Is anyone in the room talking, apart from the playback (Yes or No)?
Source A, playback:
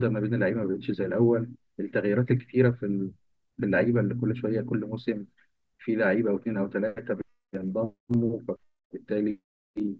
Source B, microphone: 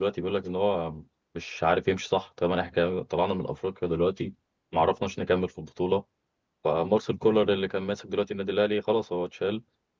Yes